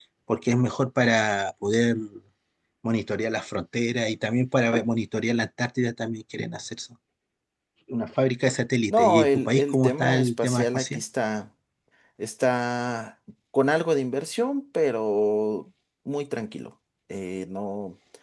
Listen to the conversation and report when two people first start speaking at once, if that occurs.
9 s

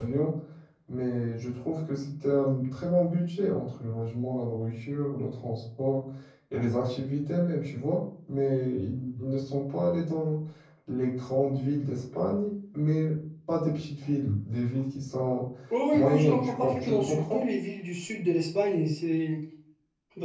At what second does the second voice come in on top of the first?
16 s

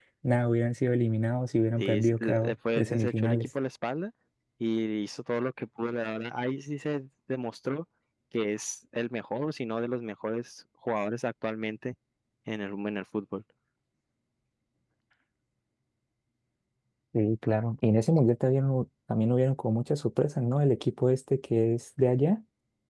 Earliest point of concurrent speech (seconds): 2 s

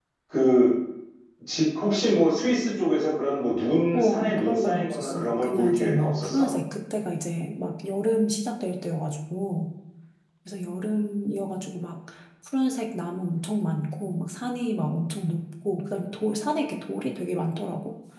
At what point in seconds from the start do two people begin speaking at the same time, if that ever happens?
4 s

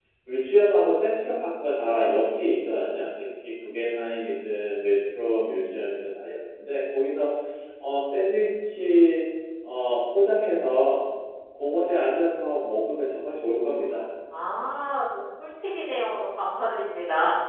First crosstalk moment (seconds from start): none

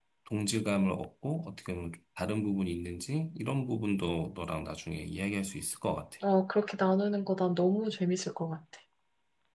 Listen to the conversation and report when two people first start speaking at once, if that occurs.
none

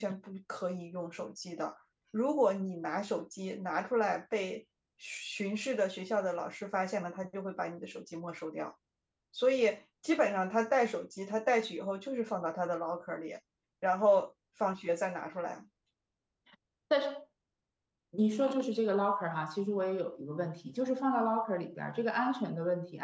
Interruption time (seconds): none

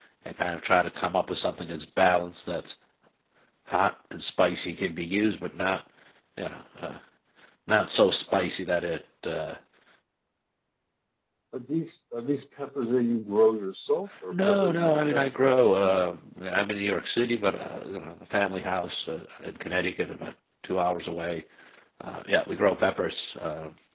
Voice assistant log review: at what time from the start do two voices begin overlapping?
14 s

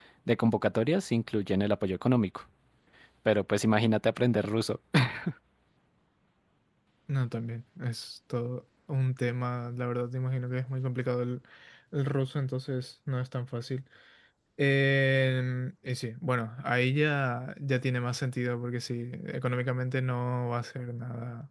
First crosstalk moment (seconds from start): none

